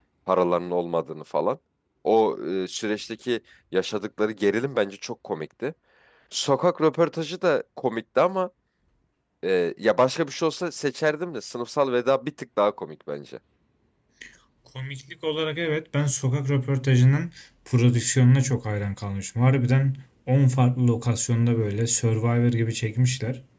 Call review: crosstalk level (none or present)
none